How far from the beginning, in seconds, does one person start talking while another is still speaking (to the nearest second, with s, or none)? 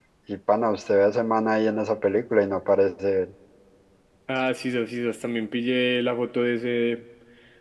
none